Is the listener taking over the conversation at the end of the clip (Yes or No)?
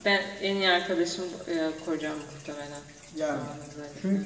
Yes